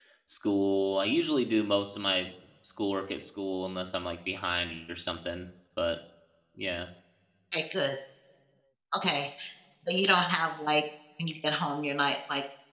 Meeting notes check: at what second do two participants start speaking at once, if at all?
none

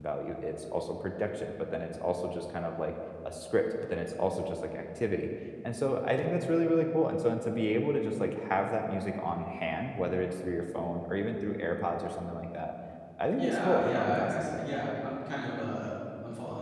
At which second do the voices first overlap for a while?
13.4 s

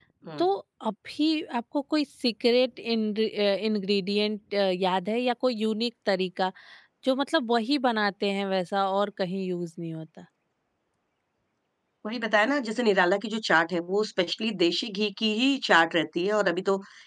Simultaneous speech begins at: none

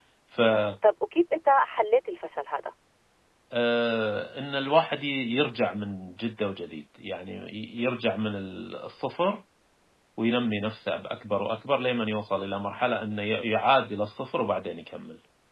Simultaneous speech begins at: none

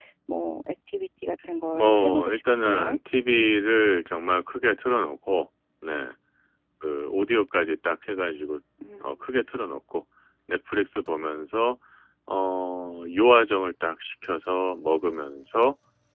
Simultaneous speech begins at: 1.7 s

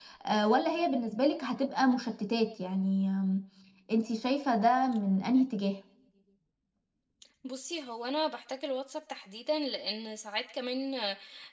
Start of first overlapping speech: none

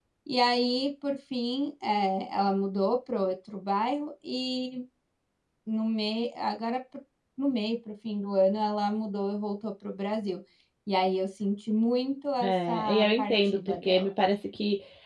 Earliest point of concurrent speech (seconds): 12.4 s

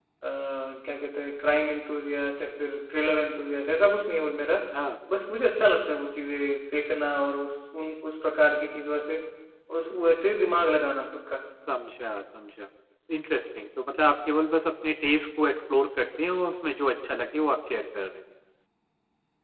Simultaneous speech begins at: none

